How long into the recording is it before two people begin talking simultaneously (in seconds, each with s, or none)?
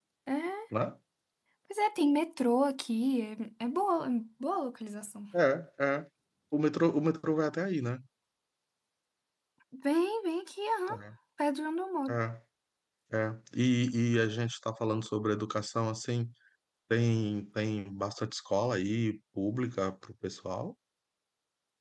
none